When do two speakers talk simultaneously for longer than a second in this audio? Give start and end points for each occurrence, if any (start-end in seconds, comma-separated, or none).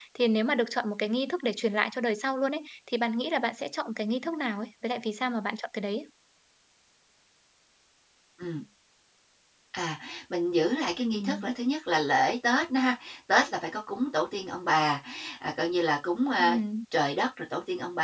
none